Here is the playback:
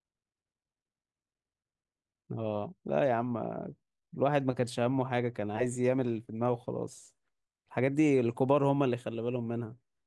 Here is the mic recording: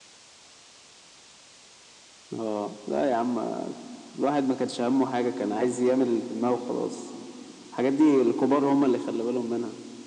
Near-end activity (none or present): none